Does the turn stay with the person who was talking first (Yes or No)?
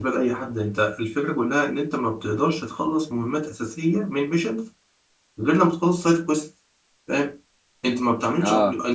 Yes